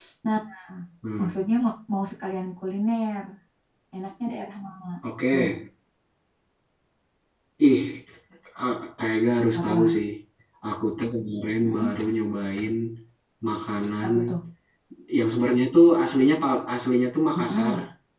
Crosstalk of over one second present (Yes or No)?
No